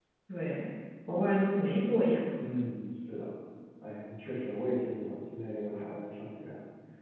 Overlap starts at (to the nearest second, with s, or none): none